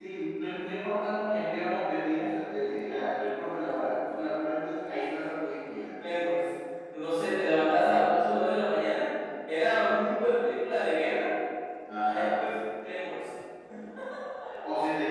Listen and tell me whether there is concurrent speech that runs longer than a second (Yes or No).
No